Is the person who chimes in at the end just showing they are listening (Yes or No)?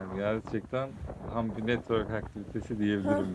No